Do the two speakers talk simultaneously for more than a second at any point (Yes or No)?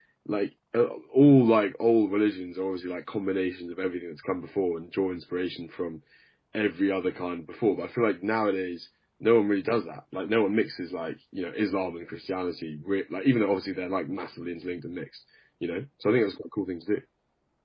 No